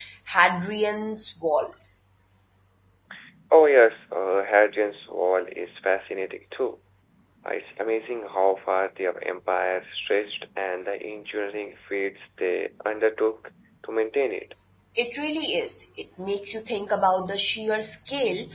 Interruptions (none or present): none